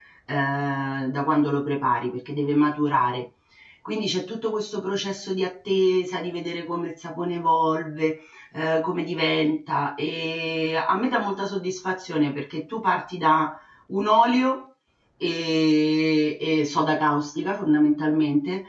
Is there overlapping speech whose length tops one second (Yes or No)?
No